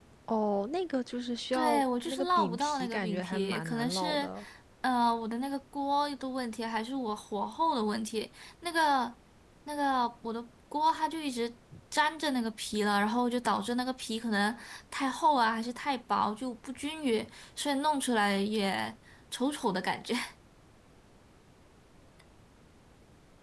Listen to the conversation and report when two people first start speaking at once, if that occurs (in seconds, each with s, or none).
1.5 s